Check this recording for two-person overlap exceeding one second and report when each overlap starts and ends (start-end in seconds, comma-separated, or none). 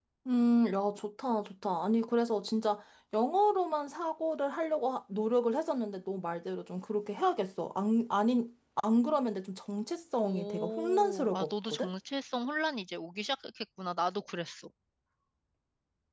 10.2-11.9